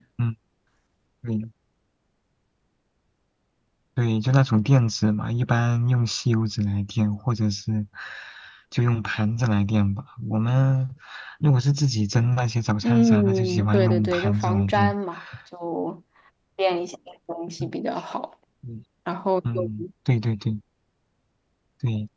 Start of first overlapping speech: 12.8 s

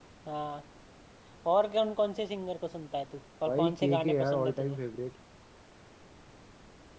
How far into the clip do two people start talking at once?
3.5 s

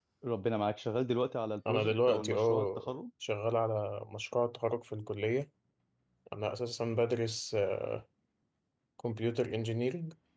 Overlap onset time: 1.6 s

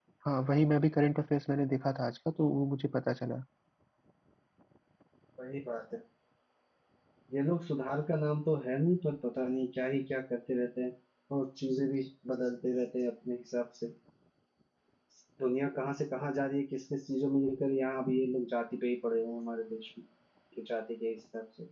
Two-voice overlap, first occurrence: none

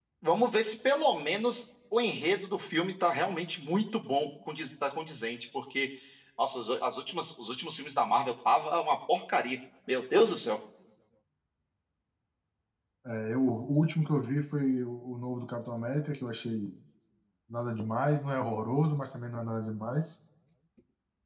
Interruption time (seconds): none

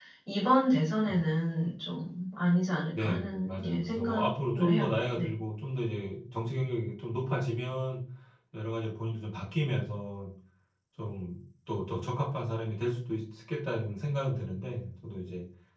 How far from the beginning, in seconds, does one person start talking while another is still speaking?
3.0 s

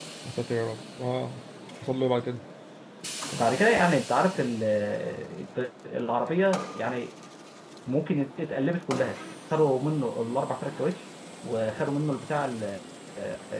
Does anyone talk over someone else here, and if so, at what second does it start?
none

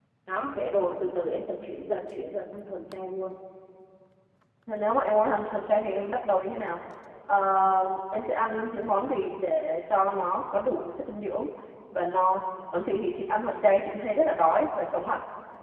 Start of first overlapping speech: none

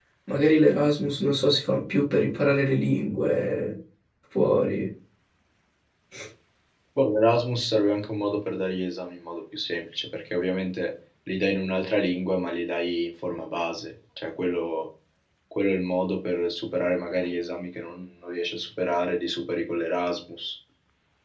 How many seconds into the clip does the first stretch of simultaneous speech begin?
none

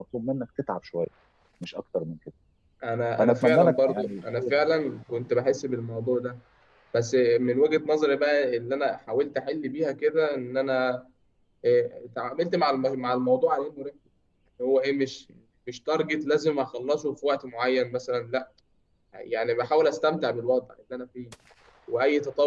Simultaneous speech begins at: 3.2 s

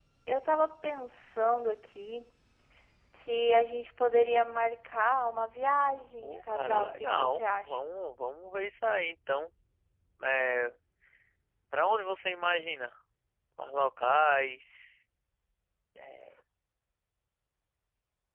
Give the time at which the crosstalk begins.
6.2 s

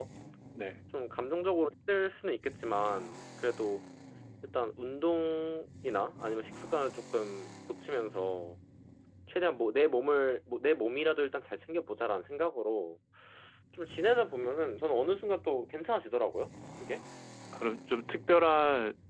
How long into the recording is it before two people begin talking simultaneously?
none

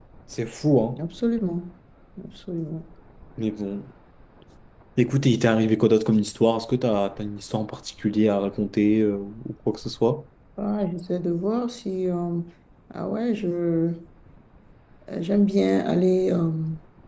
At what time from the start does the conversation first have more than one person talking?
none

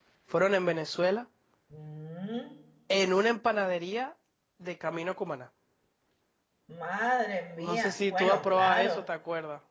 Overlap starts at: 7.6 s

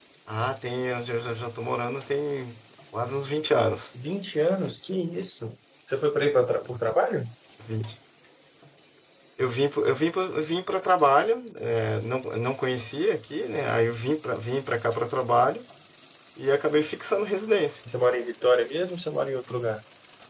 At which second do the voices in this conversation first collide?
none

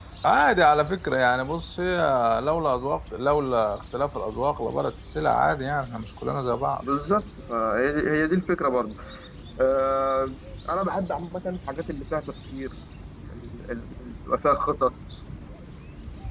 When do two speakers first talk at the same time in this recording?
none

